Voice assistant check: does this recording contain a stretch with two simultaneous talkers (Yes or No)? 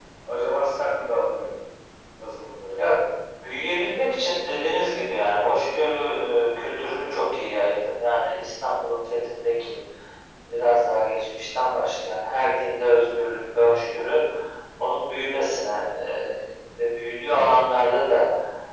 No